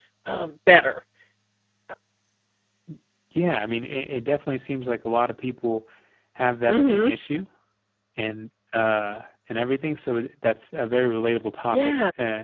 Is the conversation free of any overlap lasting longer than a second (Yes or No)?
Yes